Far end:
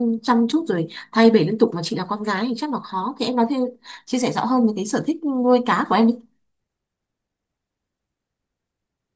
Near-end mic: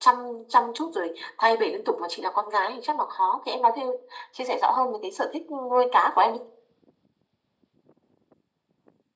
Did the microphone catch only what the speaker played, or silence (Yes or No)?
Yes